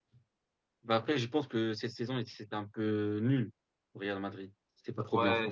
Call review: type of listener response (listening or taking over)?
taking over